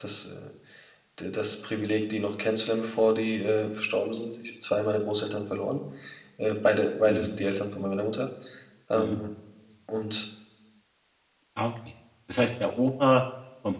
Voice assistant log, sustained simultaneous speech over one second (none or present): none